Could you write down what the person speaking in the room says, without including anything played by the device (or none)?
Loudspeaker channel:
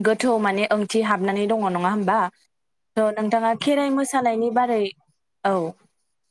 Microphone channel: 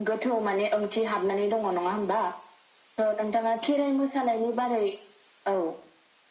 none